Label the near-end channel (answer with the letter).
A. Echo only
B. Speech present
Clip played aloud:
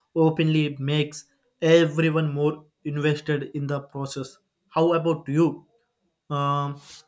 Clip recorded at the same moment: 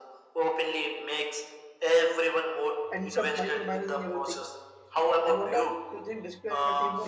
B